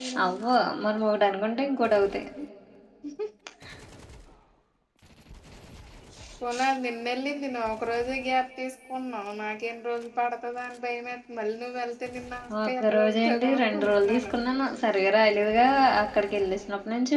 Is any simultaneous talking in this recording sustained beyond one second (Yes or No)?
Yes